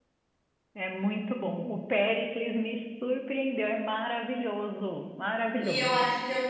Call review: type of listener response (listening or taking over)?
taking over